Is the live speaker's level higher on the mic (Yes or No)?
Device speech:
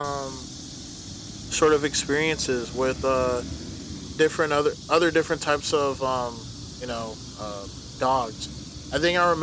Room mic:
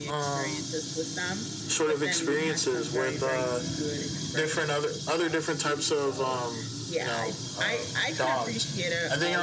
No